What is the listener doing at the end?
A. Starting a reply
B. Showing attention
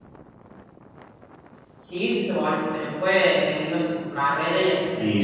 A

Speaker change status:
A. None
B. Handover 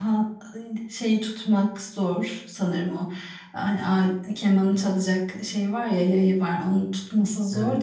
A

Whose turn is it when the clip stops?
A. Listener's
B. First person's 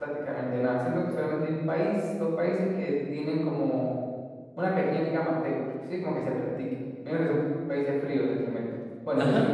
B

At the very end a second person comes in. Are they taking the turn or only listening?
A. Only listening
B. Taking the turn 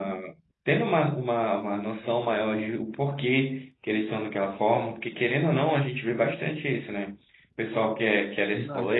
A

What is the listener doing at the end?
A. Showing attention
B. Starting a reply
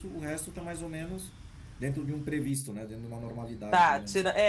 B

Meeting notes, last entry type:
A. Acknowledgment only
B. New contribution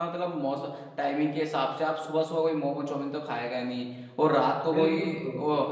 A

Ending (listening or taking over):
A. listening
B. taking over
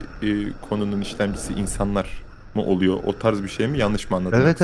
B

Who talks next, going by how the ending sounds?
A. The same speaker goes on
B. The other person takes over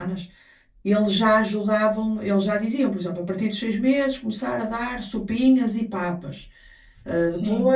A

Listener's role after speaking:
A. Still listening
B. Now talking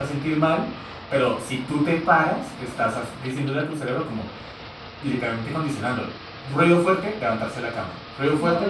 B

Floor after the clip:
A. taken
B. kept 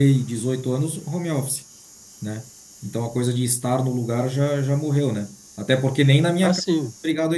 B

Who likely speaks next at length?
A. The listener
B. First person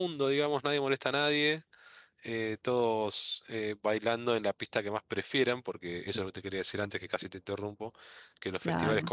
B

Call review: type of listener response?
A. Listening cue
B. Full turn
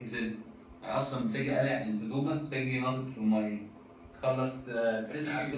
A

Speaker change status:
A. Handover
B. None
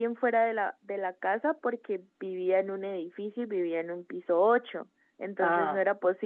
B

